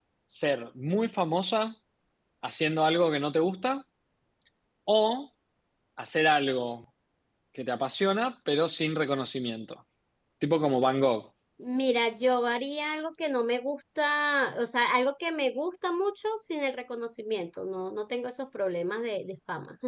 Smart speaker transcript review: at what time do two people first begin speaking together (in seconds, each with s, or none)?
none